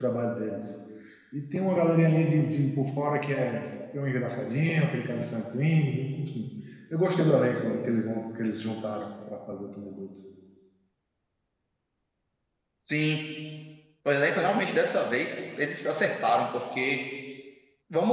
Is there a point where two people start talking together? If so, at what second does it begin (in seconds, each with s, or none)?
none